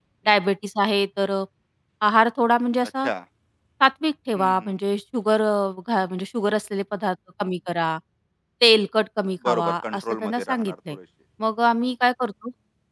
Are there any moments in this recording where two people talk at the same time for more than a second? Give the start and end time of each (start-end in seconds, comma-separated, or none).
9.4-11.0